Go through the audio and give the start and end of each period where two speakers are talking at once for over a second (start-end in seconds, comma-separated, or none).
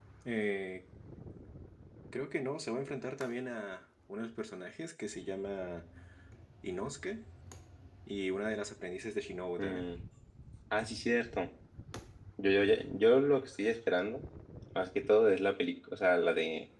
none